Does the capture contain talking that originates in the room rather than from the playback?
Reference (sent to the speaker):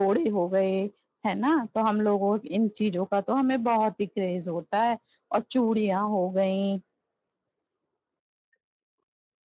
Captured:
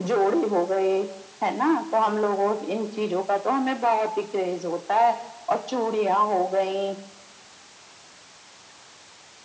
No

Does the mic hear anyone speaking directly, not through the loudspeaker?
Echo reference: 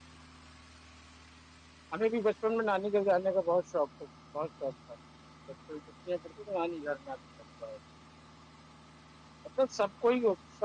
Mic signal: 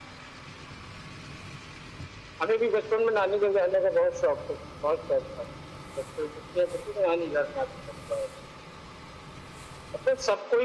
No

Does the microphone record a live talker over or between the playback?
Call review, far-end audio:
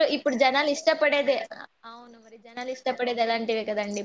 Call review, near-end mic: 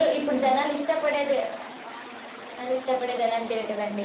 No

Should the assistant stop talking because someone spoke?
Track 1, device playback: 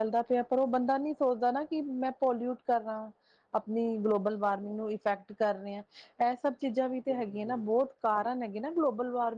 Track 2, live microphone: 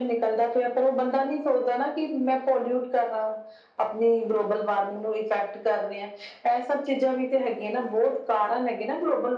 No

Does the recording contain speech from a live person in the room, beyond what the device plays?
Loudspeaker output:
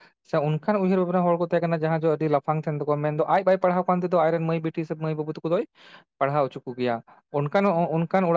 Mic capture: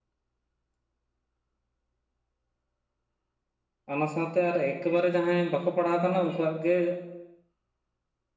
Yes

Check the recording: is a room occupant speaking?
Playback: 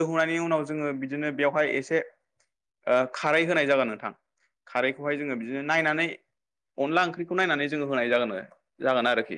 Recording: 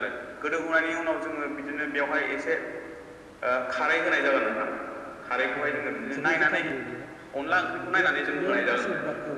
Yes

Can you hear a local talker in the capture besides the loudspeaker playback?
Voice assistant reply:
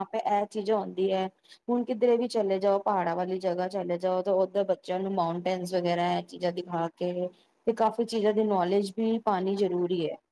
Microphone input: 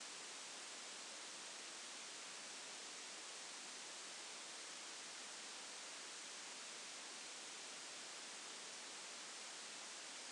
No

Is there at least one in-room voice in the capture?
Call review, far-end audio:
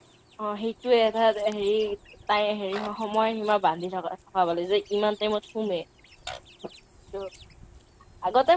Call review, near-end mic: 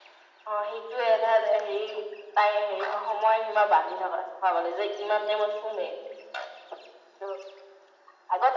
No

